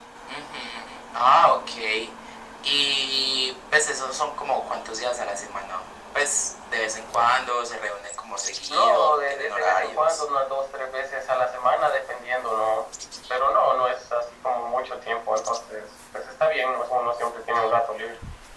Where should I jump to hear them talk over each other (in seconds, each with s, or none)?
8.7 s